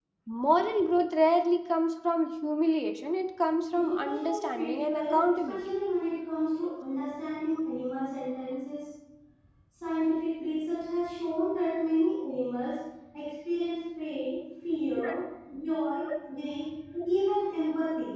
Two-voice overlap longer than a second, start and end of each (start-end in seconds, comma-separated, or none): 3.7-5.6